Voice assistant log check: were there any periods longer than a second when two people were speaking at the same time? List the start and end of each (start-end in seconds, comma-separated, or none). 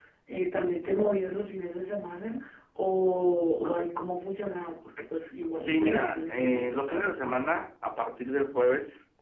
5.6-7.4